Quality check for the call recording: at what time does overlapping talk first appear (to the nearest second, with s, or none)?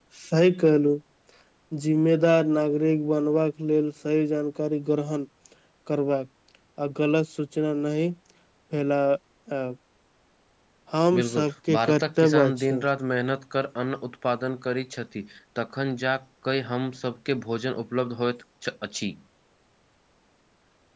11 s